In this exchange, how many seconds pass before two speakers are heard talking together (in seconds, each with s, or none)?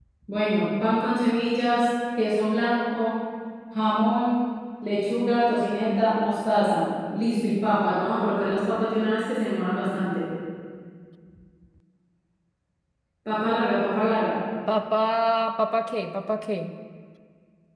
none